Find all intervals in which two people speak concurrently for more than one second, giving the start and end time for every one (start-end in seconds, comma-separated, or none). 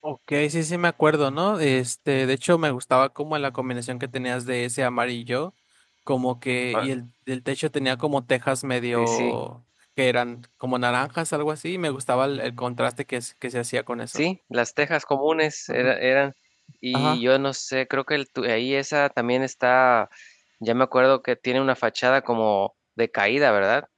none